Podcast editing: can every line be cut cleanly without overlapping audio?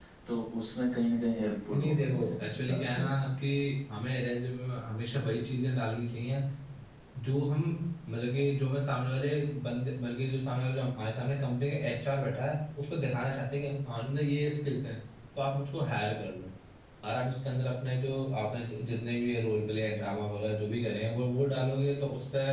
No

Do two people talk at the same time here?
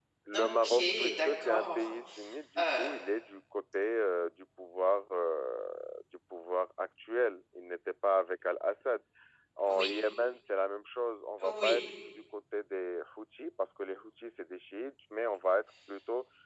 Yes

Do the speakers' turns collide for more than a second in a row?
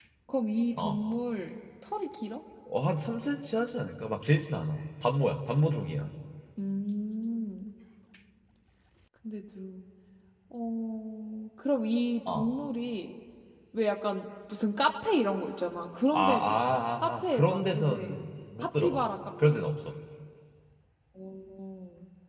Yes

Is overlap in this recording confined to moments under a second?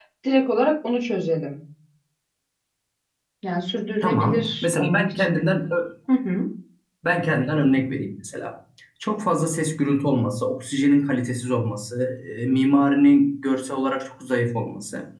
No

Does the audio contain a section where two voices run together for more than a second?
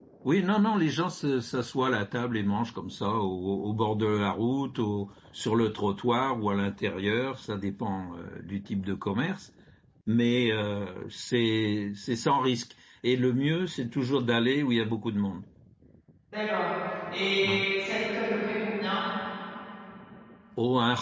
No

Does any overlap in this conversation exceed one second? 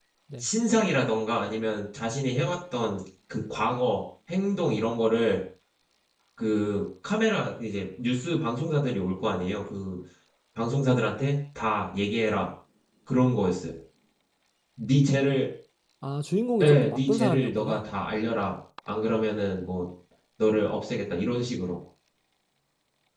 Yes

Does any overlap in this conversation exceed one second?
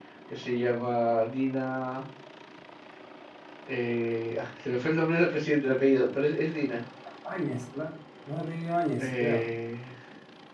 No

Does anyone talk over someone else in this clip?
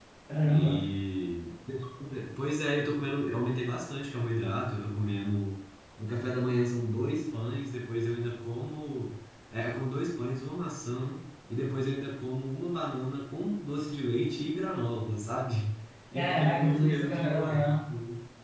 Yes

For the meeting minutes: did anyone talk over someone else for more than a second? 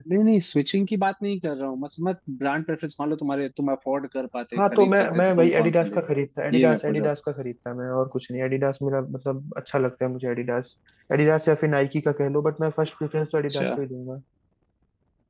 Yes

